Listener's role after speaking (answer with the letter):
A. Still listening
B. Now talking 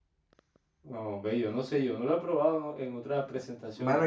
B